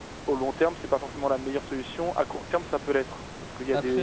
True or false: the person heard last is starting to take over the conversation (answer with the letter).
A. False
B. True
A